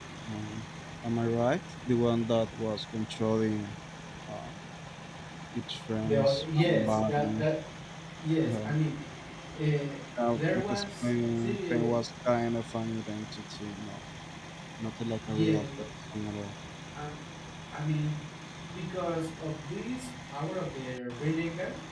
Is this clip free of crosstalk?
No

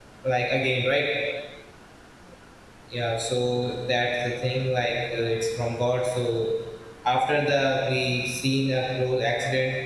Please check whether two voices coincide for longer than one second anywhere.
No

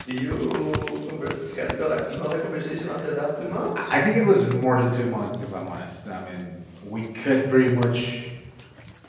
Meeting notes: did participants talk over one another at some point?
No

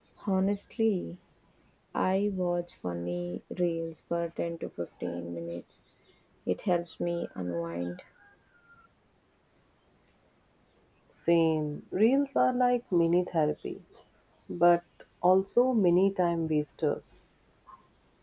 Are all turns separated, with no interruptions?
Yes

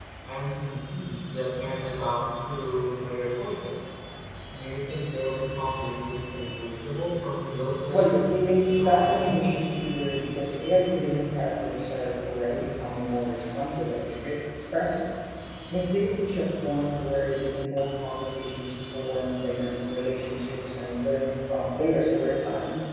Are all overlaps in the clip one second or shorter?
No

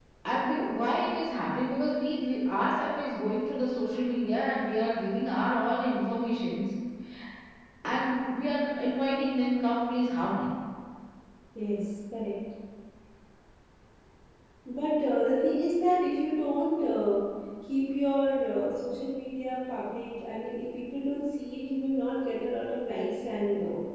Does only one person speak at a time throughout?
Yes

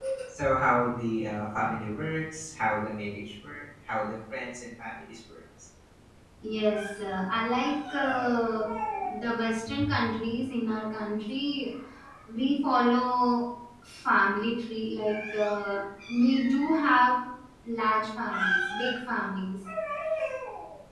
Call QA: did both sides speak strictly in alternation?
Yes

